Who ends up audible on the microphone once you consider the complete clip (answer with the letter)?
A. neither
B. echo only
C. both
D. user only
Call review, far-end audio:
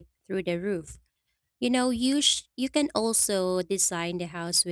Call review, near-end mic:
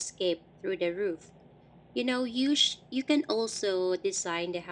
B